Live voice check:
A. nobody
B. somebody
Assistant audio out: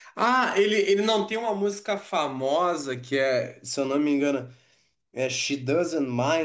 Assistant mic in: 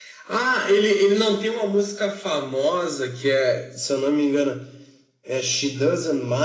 A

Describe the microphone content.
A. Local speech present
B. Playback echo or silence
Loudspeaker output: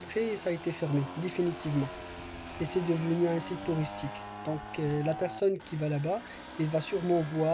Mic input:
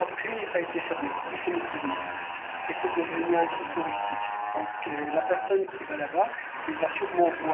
B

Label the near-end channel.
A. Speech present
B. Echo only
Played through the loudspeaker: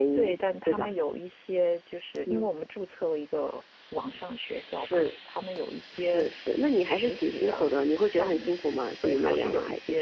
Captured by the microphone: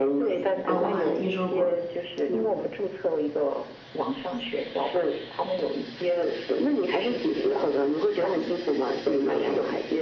A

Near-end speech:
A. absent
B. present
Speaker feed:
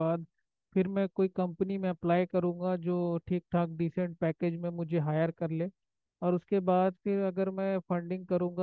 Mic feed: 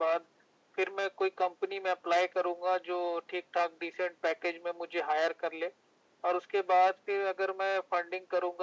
A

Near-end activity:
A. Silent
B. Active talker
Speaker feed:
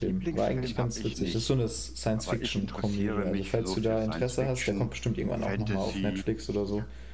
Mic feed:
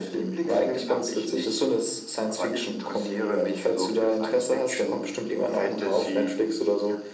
A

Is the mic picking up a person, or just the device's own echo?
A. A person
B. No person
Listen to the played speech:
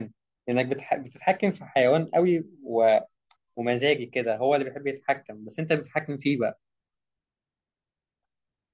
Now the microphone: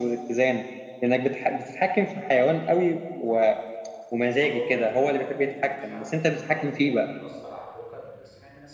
A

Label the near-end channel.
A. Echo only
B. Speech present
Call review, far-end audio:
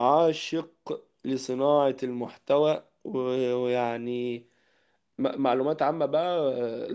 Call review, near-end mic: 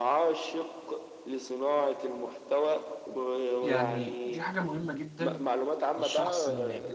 B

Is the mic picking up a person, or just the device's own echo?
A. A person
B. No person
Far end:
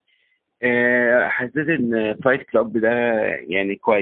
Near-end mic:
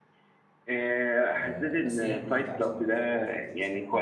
A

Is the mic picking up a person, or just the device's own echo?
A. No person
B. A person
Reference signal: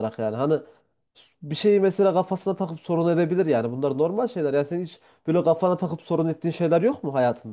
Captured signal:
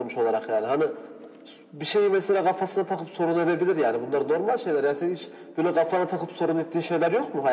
A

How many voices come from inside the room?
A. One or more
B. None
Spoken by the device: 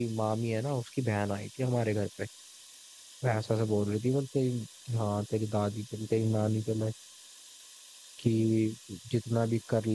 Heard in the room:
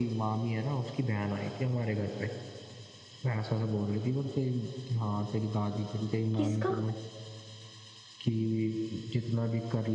A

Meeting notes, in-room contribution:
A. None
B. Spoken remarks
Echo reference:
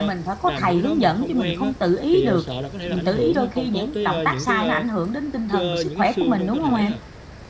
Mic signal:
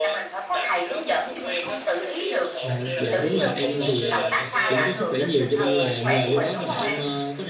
B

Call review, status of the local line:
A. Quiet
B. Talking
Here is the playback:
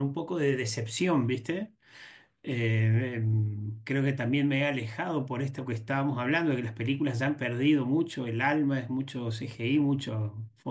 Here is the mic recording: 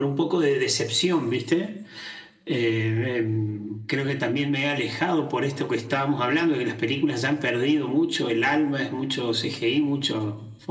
A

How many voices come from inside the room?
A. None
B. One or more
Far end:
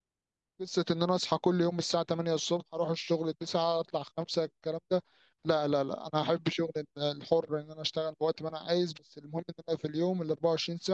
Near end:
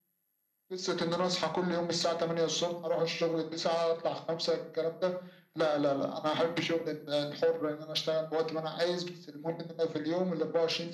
A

